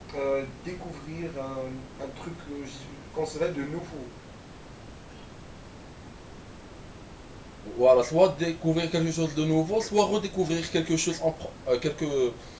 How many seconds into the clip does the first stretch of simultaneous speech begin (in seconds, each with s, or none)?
none